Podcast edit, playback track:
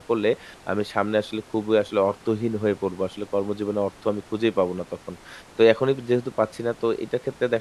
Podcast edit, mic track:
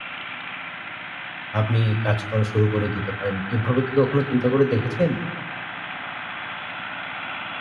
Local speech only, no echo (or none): আপনি কাজ করা শুরু করে দিতে পারেন। এভাবে কি কখনো চিন্তা করে দেখেছেন?